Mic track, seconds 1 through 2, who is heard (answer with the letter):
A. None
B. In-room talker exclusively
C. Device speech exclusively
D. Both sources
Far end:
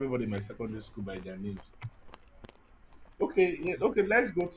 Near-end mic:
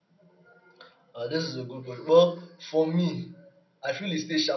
B